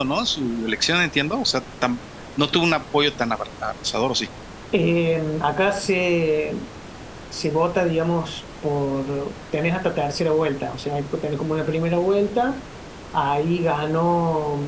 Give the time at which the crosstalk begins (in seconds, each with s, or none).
none